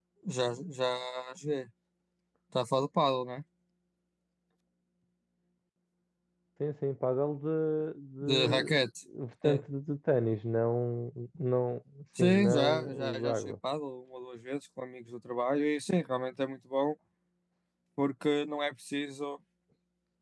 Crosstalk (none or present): present